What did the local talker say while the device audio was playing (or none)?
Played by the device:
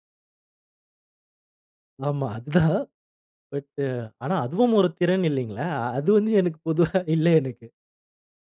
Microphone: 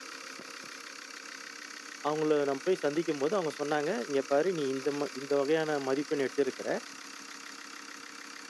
அவங்கள நான் போய் சந்திக்கும்போது அவங்க சொன்னாங்க, "இங்க பாரு நீ இந்த ம இந்த வகையான மதிப்பெண் எடுத்திருக்கிற.